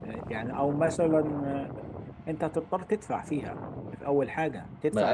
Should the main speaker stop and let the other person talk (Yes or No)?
Yes